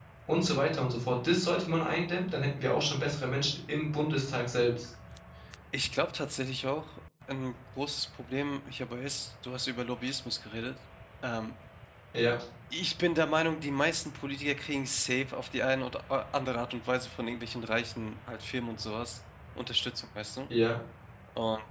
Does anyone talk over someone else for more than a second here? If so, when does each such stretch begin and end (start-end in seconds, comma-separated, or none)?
none